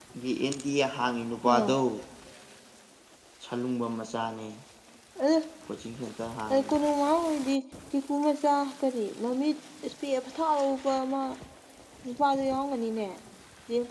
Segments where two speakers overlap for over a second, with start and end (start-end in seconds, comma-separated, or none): none